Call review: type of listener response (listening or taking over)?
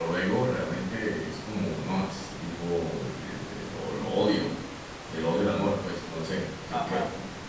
taking over